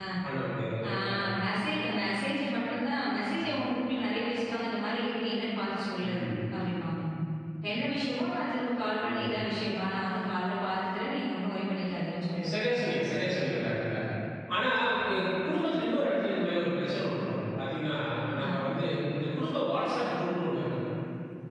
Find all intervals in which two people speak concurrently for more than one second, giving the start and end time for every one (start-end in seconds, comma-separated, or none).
none